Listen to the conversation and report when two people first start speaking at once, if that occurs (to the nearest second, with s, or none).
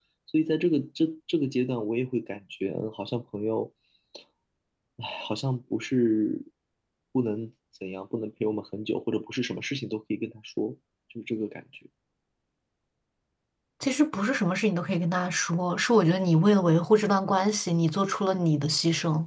none